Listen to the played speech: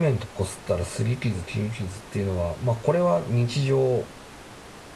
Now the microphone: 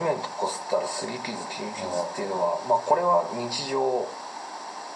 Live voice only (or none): あ